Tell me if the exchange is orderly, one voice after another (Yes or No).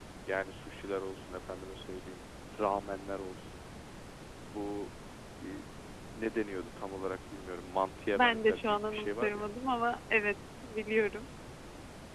No